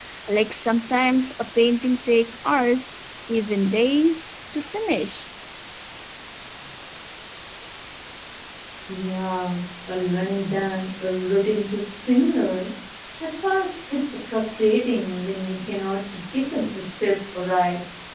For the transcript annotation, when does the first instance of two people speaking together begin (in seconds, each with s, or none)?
none